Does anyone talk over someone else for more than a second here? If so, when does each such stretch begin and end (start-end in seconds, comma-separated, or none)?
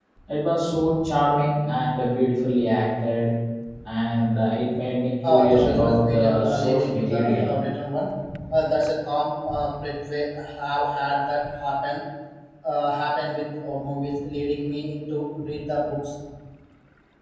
5.3-7.6